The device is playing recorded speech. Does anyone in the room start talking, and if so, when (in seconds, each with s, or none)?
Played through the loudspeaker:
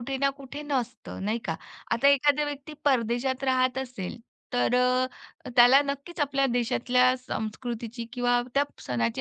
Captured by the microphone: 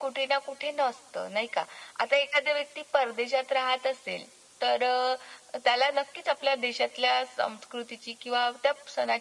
none